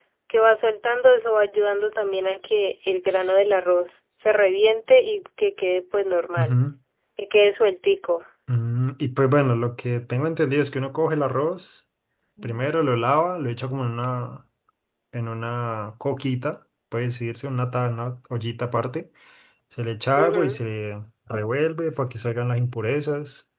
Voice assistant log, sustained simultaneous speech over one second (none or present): none